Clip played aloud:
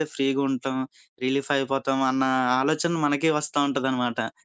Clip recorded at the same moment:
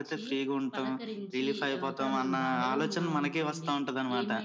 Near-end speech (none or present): present